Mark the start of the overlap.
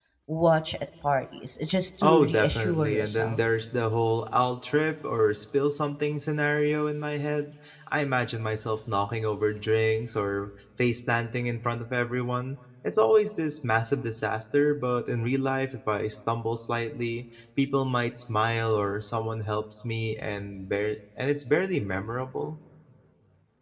2.0 s

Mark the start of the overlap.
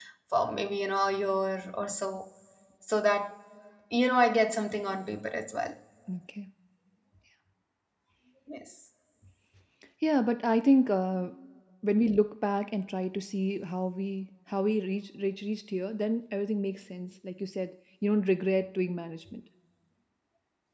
none

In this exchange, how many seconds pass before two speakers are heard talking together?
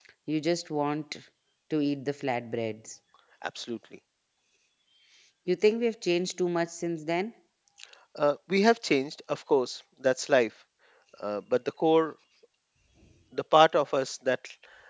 none

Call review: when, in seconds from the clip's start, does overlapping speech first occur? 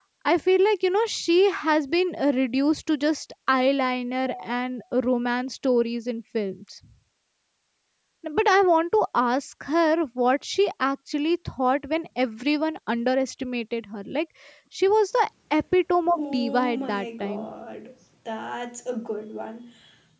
16.1 s

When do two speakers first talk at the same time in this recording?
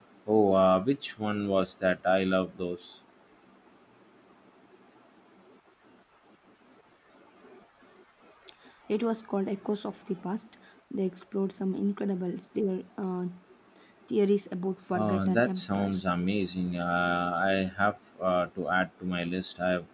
14.9 s

